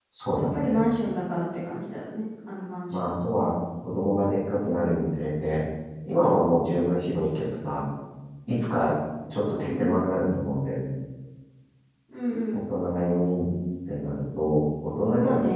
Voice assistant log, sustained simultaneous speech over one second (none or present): none